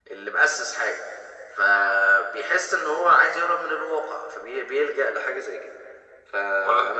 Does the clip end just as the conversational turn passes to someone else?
No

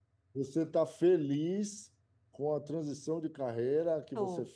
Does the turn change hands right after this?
No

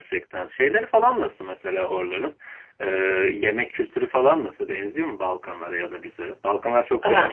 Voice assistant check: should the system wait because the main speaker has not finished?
No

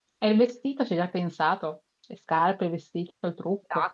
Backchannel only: No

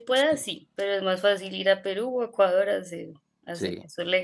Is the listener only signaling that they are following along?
No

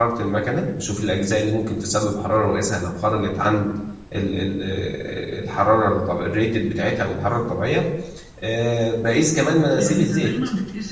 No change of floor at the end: No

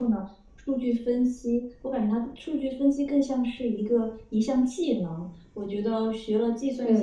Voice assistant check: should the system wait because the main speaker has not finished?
Yes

